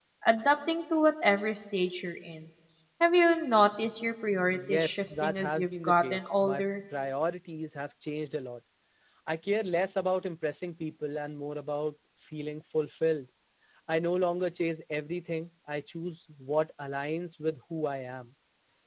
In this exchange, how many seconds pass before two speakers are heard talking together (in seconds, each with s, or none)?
4.5 s